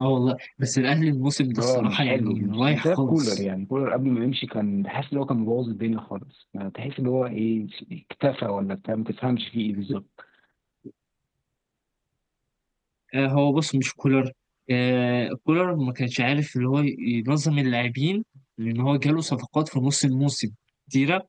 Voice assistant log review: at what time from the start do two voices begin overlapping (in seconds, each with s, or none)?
1.5 s